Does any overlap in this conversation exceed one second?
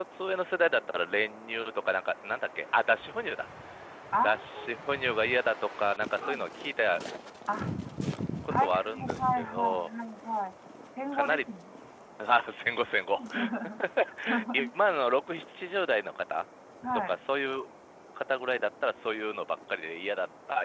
Yes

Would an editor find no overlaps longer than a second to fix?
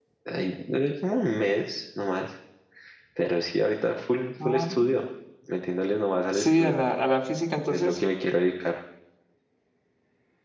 Yes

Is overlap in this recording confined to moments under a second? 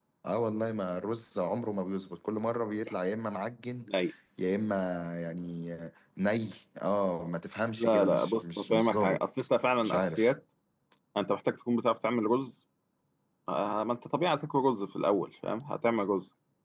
No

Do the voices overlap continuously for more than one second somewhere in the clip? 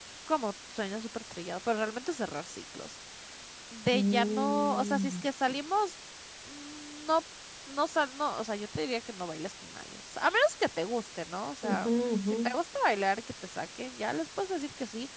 Yes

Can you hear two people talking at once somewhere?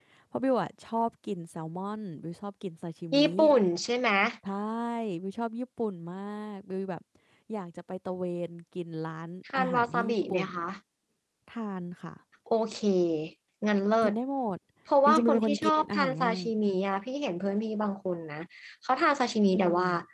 Yes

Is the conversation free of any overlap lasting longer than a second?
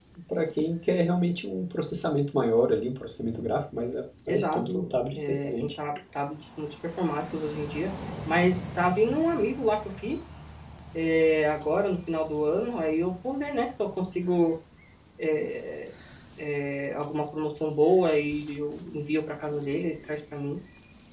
No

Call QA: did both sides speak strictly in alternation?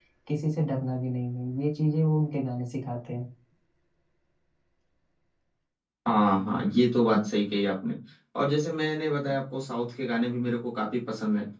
Yes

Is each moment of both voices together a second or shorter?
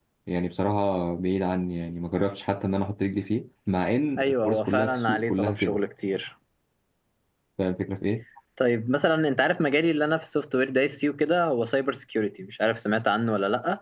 No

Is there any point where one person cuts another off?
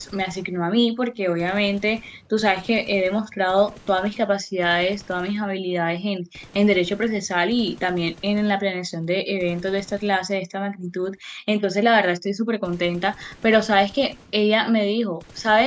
No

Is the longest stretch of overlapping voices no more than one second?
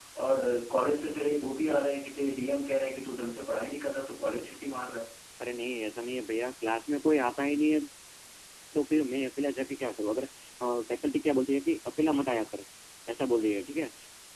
Yes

